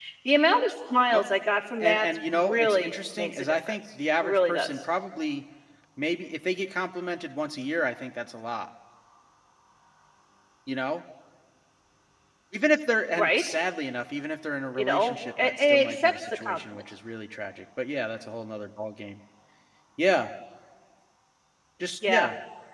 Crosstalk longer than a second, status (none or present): present